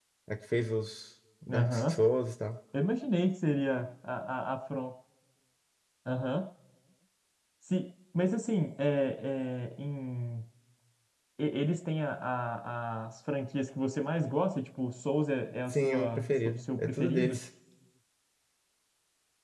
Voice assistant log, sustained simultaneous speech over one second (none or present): present